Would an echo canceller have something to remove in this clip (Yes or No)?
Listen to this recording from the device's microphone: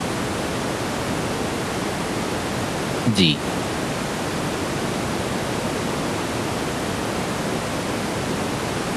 No